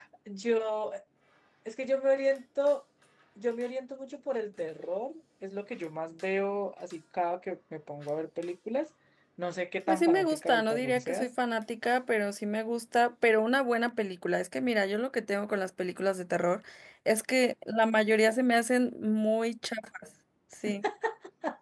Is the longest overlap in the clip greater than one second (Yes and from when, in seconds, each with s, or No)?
Yes, from 9.9 s